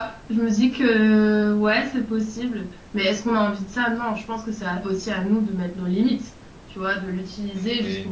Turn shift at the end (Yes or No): No